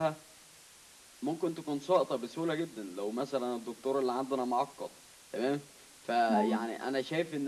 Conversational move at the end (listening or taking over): listening